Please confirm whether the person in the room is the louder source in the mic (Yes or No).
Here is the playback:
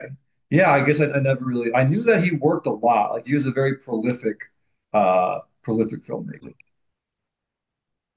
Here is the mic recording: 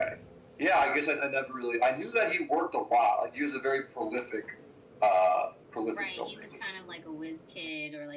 No